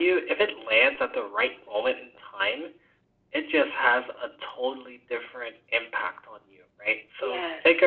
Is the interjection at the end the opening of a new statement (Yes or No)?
No